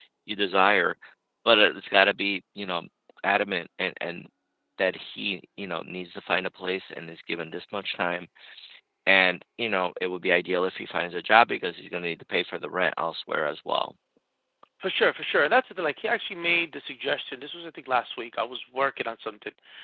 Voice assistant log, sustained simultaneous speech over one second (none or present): none